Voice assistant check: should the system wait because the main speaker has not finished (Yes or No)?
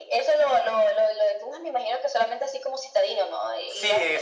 No